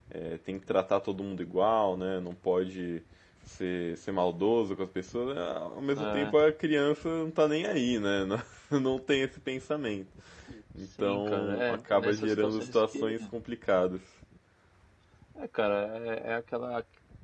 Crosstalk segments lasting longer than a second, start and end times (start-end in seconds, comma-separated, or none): 11.0-13.1